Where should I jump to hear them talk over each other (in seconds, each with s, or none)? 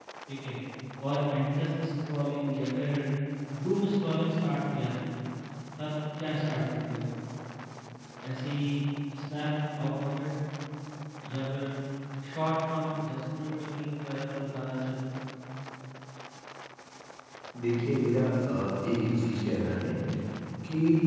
none